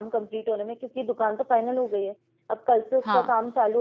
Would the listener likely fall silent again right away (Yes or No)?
Yes